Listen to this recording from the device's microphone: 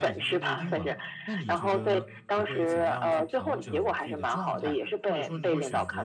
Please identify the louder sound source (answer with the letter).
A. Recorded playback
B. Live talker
A